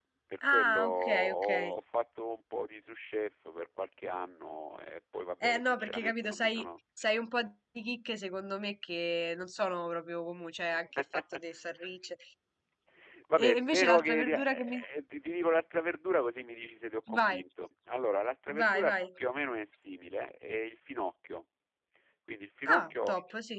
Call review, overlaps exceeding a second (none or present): present